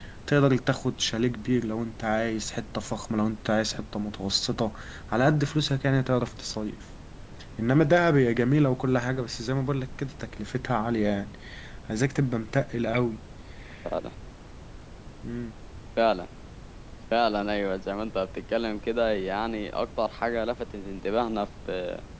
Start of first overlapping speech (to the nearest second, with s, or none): none